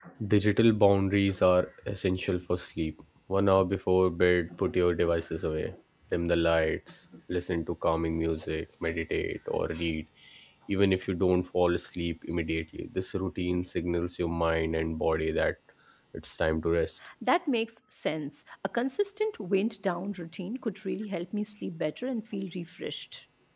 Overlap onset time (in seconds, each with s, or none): none